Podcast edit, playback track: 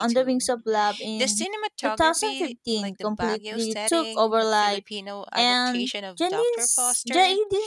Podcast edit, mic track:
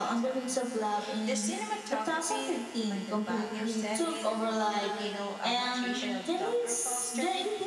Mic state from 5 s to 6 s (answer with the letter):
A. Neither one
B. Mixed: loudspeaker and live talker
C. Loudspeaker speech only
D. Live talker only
C